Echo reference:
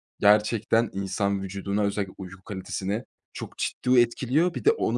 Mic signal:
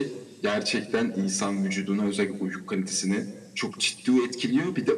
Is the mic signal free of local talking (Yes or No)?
Yes